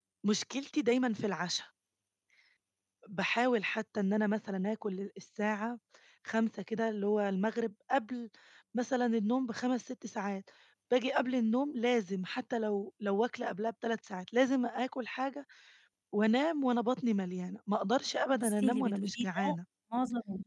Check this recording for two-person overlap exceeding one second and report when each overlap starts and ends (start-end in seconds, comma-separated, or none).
18.4-19.6